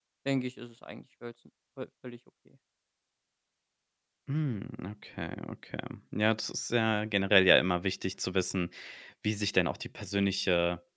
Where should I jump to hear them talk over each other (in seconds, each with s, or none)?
none